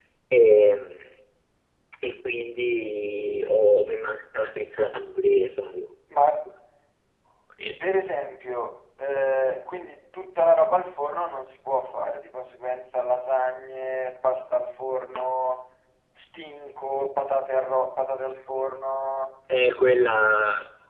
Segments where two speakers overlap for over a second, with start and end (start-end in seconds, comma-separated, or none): none